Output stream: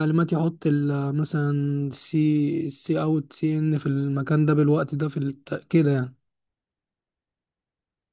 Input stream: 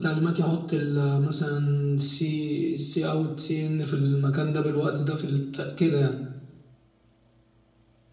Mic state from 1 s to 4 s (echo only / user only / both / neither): echo only